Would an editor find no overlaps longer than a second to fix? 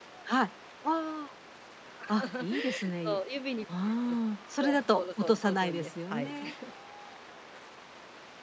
No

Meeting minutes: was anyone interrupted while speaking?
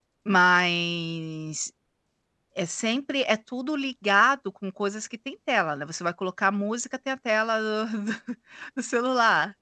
No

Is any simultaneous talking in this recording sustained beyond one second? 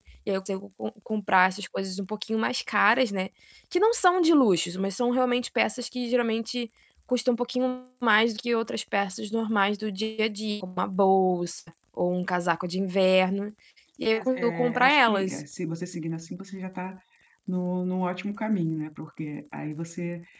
Yes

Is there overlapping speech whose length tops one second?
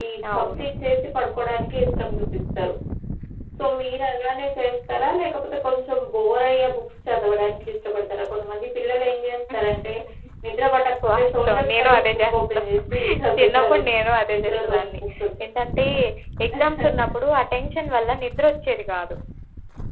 Yes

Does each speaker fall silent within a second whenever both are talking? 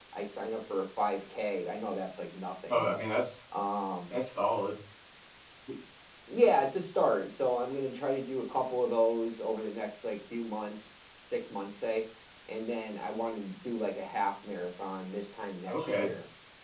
Yes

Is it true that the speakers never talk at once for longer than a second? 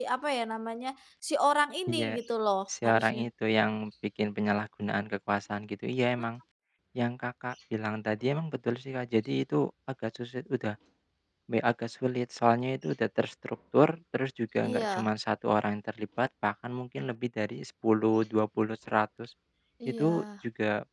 Yes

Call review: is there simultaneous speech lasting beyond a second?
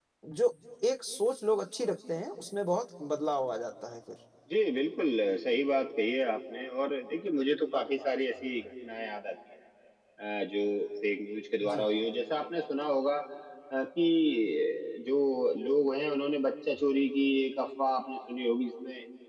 No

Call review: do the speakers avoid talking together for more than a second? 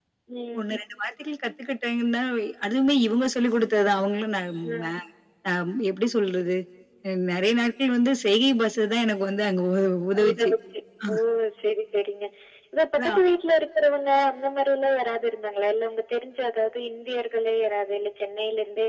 Yes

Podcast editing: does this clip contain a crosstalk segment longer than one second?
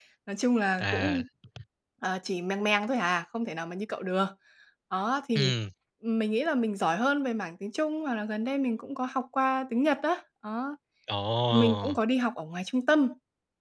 No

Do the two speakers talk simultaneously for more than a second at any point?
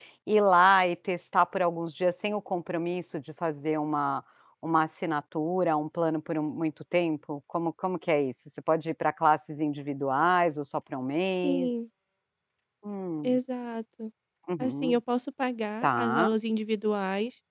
No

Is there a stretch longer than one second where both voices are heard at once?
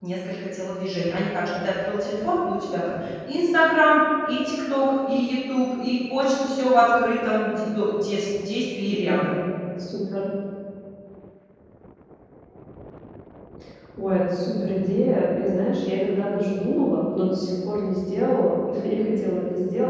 No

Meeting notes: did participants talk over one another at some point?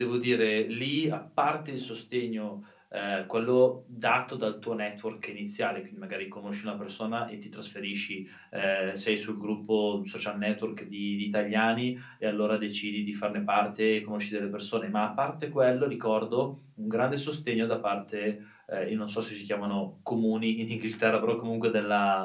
No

